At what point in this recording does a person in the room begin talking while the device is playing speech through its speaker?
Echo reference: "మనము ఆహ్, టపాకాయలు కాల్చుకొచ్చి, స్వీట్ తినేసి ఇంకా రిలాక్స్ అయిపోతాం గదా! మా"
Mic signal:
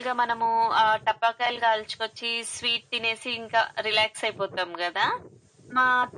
none

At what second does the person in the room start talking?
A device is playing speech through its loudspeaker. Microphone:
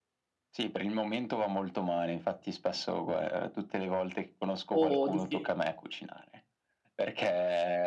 4.7 s

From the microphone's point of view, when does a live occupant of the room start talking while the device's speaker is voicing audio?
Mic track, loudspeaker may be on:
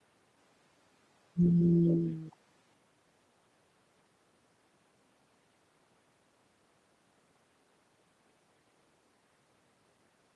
1.4 s

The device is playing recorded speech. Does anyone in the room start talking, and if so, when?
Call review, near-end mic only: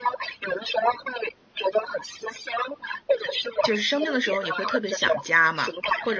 3.6 s

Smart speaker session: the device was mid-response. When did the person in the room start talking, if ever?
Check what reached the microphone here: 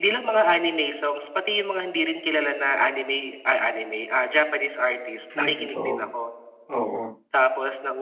5.4 s

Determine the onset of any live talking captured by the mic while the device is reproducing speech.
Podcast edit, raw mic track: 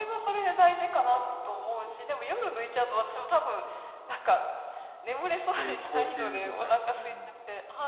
5.5 s

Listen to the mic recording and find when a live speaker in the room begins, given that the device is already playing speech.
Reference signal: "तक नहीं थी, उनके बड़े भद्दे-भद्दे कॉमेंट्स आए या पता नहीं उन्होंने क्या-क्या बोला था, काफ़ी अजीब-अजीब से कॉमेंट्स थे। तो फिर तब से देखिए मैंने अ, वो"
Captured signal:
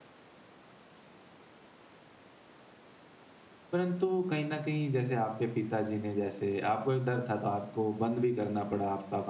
3.7 s

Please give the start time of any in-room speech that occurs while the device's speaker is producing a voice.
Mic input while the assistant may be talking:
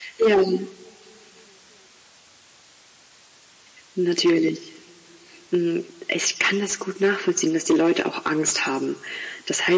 none

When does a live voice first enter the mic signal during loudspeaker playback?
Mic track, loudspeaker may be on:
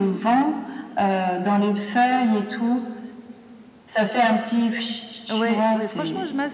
5.3 s

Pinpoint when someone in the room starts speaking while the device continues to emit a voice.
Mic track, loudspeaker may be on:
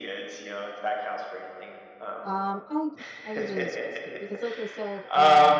2.2 s

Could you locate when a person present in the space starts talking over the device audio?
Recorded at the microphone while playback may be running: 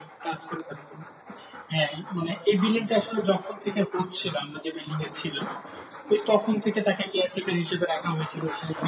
none

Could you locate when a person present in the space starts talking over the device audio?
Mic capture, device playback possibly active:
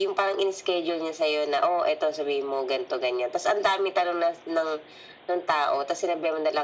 none

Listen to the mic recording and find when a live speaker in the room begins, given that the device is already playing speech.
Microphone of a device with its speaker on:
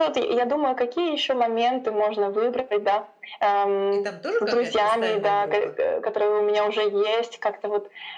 3.9 s

